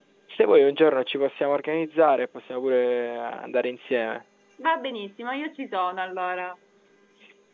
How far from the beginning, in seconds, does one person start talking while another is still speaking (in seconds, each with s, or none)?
none